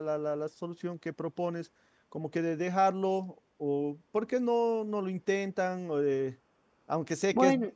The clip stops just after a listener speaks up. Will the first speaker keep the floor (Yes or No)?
Yes